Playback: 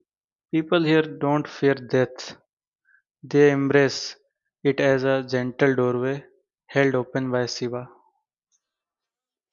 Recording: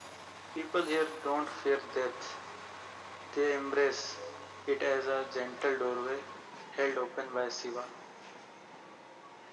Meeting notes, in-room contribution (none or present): none